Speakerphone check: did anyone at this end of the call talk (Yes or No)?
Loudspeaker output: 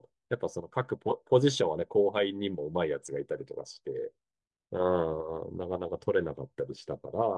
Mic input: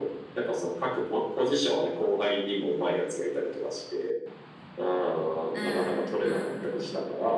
Yes